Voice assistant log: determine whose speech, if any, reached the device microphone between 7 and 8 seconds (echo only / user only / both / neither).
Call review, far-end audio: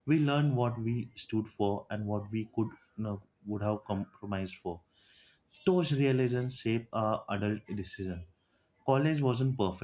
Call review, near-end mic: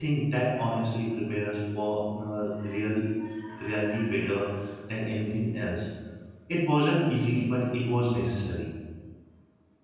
user only